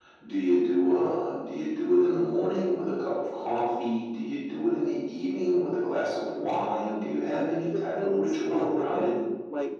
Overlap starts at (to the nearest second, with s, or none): 7 s